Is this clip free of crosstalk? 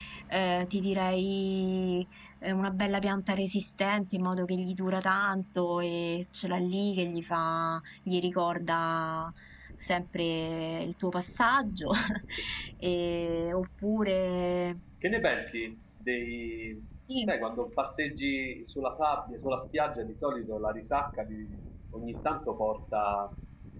Yes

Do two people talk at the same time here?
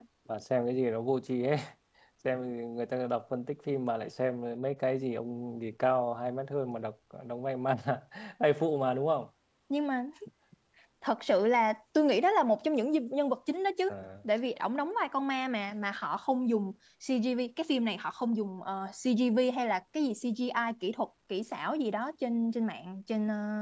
No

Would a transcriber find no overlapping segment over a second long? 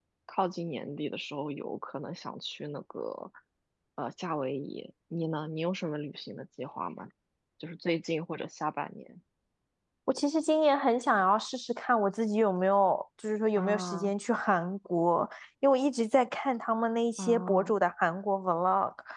Yes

